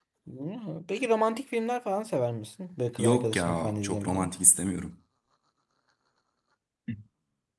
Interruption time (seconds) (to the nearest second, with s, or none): 3 s